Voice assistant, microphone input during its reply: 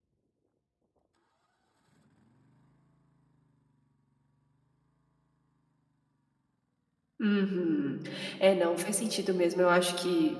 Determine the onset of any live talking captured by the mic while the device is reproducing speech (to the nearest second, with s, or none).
7 s